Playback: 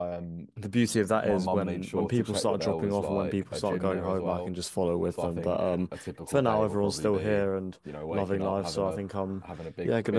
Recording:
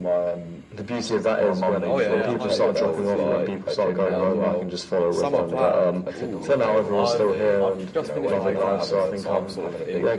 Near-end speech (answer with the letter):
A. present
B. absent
A